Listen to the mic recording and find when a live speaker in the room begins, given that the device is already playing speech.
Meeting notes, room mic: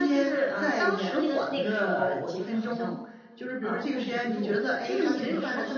none

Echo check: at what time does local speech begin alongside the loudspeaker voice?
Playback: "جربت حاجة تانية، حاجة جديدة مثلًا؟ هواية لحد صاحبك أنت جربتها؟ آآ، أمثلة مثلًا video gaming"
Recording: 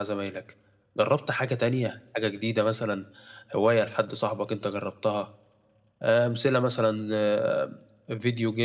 none

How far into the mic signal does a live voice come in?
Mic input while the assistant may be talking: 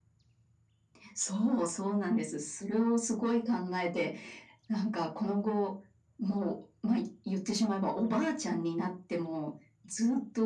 none

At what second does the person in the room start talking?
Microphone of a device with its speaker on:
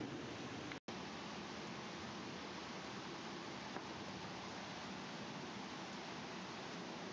none

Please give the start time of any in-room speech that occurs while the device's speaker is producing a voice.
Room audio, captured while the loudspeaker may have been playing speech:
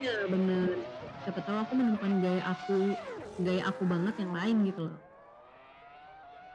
none

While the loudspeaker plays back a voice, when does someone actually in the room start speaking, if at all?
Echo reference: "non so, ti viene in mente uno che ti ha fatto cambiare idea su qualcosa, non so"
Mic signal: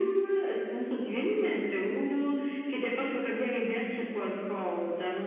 none

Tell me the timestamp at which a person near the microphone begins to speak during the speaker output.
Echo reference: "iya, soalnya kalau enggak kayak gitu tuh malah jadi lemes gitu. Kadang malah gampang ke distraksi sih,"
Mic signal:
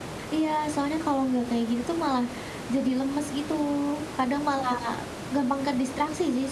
none

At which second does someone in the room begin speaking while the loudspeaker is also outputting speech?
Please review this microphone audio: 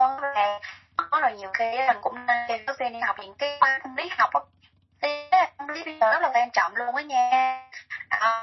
none

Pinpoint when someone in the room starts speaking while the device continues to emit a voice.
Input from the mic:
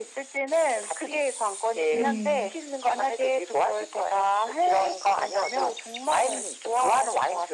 1.9 s

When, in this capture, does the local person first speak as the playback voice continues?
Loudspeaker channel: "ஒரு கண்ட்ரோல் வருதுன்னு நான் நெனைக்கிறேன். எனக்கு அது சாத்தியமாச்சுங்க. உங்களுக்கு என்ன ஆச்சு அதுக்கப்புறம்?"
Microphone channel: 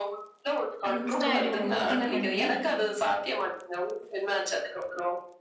0.8 s

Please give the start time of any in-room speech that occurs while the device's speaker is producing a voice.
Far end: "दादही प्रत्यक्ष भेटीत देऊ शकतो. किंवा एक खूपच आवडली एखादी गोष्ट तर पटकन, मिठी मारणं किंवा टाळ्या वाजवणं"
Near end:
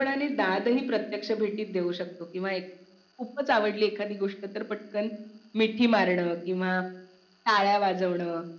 none

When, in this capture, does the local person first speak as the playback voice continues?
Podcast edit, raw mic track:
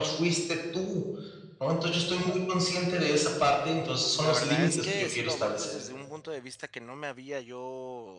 4.2 s

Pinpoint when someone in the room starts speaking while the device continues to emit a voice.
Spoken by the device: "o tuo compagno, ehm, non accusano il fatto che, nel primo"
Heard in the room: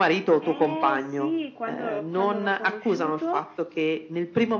0.4 s

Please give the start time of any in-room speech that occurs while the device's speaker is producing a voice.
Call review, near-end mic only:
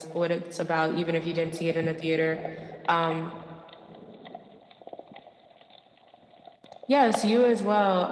none

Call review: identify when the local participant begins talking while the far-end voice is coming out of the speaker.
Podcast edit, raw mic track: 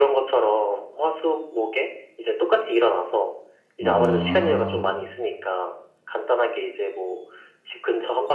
3.8 s

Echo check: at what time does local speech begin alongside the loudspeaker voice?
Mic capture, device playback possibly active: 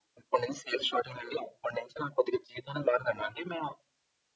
none

